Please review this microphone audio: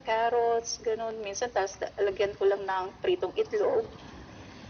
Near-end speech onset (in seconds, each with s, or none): none